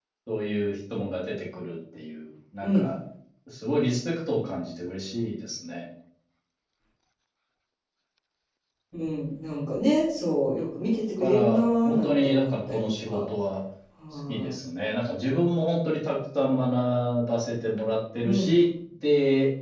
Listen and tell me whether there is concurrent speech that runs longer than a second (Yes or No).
Yes